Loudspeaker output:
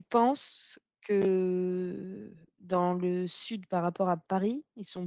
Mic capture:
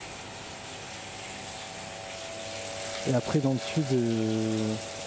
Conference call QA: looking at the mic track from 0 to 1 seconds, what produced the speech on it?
neither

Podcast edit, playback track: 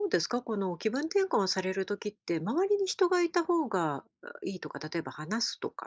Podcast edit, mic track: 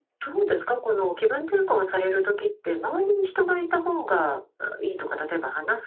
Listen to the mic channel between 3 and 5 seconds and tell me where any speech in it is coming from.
echo only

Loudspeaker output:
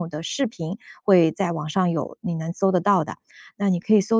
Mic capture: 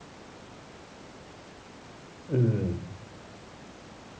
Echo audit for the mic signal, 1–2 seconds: neither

